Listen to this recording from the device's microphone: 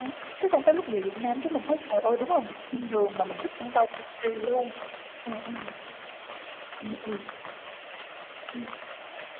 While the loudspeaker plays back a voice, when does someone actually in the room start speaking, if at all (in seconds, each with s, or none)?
none